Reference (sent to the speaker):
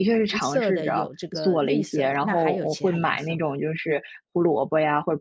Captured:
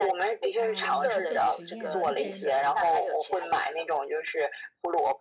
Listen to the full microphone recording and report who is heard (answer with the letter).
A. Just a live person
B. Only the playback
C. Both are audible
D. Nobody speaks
C